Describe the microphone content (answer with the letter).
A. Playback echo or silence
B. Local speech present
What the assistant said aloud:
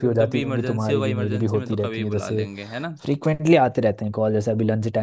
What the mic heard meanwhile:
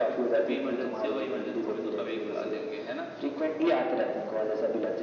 A